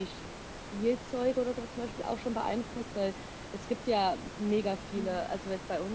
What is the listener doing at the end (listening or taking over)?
listening